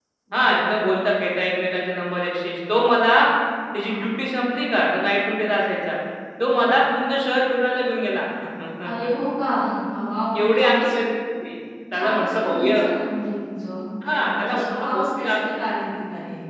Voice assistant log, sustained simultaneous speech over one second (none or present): present